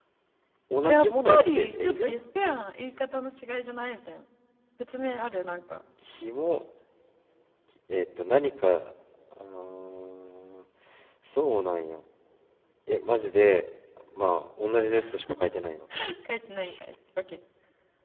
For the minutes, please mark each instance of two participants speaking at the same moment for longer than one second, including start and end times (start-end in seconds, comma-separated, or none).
0.8-2.1